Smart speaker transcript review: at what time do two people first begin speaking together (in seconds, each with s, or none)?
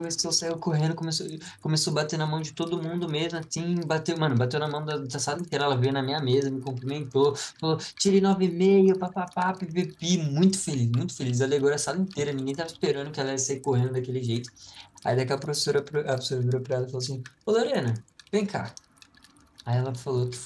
none